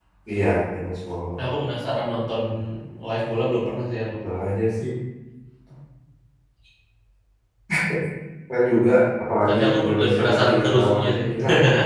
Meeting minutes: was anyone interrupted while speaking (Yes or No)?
Yes